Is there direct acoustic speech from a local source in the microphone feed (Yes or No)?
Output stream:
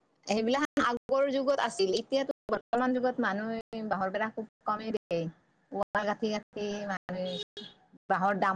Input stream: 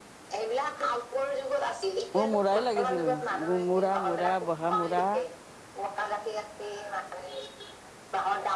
Yes